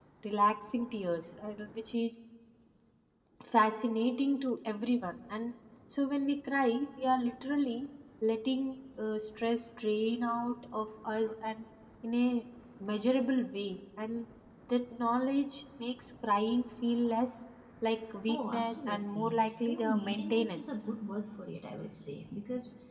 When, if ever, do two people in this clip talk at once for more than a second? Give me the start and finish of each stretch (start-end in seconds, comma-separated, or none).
18.3-20.9